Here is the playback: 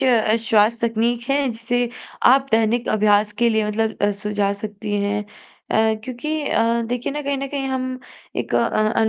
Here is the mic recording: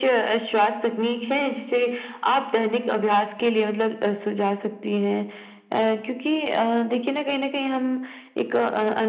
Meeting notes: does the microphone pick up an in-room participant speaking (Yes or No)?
No